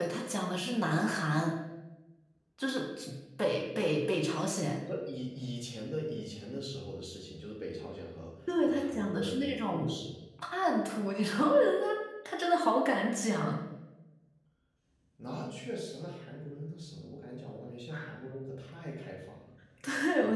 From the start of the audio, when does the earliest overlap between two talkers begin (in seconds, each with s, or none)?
8.5 s